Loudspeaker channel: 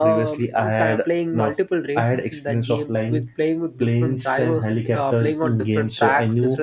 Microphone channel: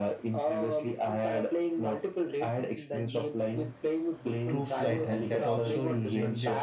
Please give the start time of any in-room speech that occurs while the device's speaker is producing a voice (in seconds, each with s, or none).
4.5 s